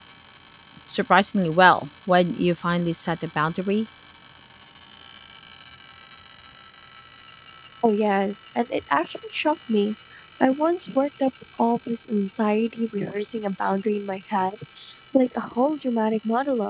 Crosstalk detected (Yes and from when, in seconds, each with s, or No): No